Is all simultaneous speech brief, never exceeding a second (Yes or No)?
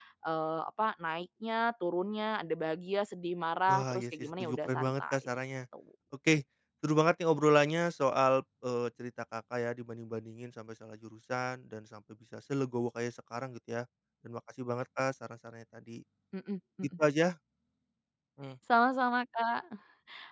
No